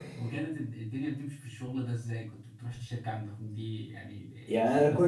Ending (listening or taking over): taking over